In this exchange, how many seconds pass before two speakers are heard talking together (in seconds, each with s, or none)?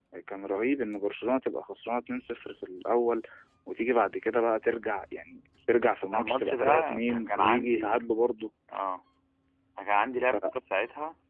6.1 s